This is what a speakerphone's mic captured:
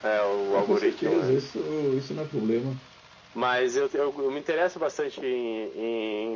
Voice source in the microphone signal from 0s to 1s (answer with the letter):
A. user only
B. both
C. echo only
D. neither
B